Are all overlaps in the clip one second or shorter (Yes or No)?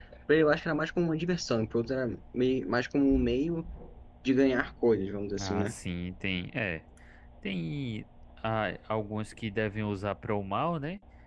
Yes